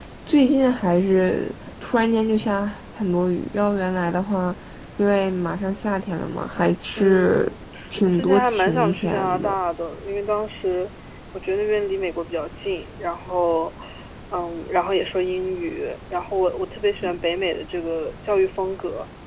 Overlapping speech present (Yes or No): Yes